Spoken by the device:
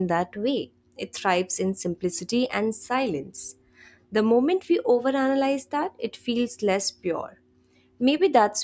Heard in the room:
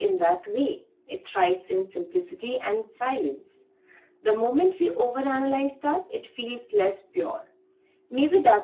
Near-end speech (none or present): none